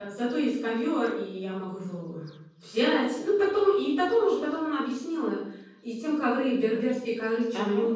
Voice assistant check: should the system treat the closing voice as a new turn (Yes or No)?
No